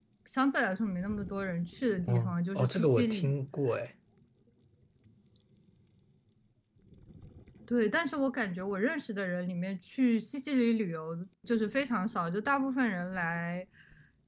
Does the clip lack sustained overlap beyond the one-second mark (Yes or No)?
No